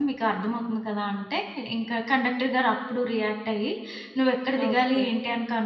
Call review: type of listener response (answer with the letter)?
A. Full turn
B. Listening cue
B